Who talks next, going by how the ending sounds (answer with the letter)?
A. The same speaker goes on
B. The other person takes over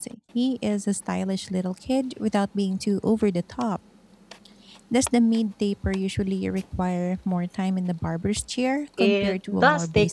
B